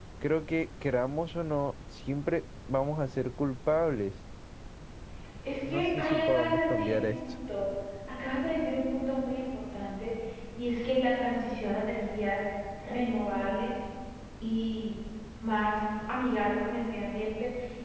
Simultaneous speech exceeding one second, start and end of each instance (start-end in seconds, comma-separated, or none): 5.7-7.1